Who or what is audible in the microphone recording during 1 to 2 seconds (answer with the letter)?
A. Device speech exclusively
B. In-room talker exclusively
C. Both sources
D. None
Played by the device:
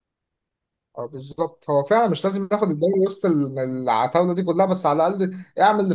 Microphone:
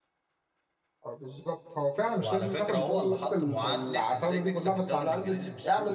A